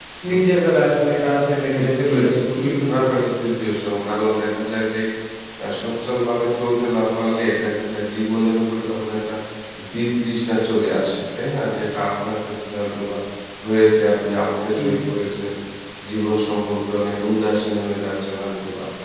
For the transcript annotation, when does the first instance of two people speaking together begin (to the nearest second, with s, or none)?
2 s